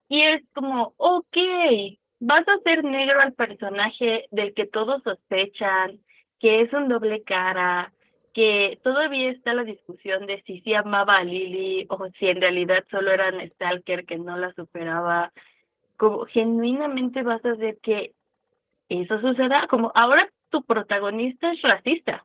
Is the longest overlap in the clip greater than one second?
No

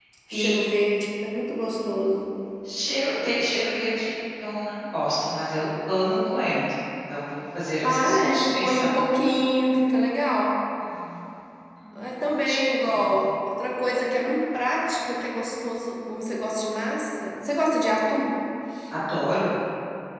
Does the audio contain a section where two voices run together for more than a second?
Yes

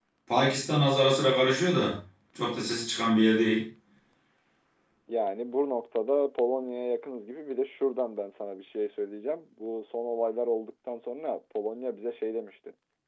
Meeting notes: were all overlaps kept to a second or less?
Yes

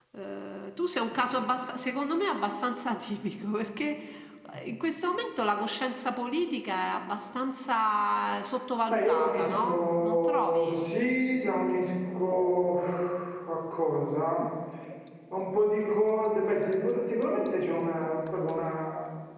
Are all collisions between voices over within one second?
No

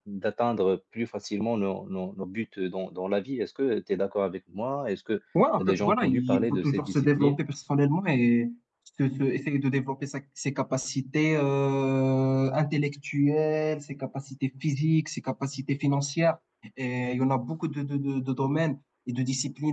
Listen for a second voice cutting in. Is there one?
Yes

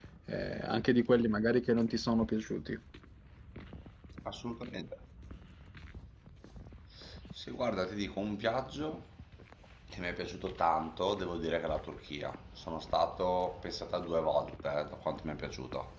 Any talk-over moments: No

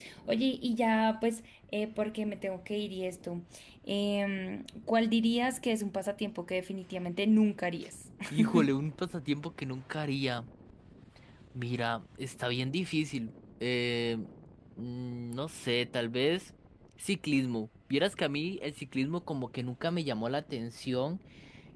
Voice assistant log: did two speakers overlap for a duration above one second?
No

